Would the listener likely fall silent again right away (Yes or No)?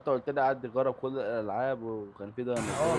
No